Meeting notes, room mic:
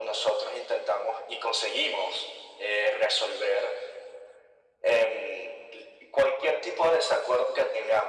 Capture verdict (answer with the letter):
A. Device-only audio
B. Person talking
A